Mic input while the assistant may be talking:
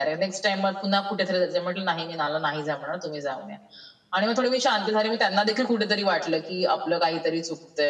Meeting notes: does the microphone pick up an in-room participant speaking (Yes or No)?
No